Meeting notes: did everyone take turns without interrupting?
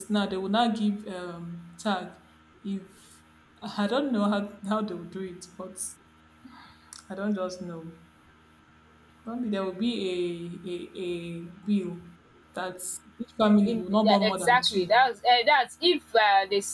No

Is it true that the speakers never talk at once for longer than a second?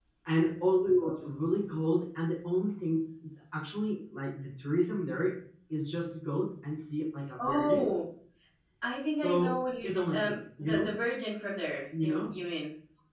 No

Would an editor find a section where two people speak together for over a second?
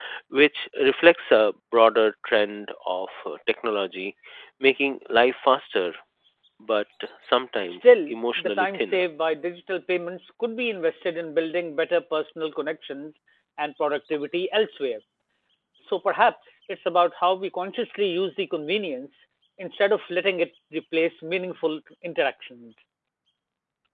Yes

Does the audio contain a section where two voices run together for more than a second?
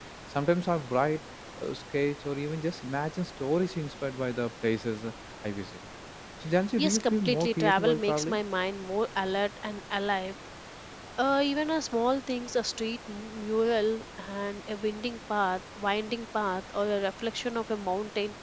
Yes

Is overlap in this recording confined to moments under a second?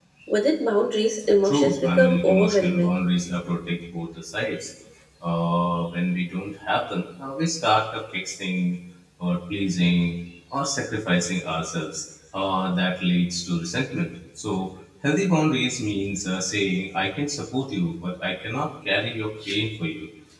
No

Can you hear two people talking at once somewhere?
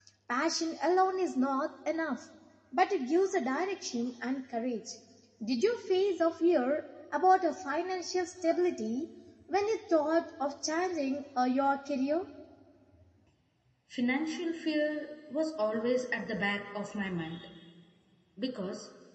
No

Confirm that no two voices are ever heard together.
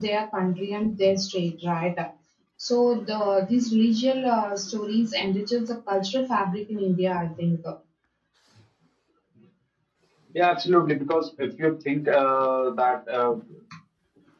Yes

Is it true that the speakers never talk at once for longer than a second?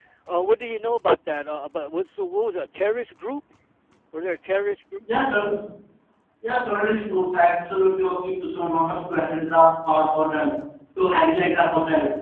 Yes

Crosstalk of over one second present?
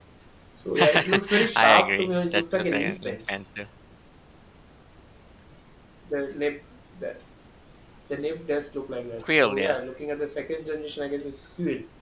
Yes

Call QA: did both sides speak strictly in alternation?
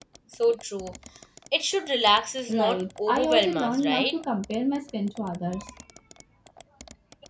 No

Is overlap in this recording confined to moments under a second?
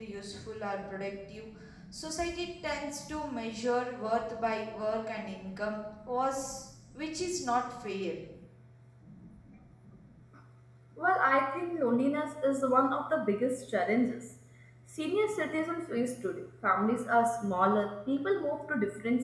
Yes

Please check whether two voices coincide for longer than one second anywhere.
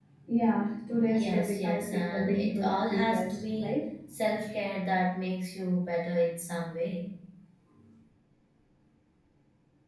Yes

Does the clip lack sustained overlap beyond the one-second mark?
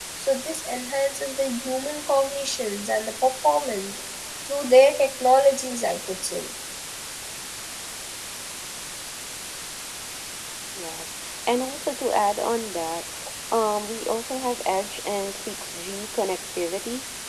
Yes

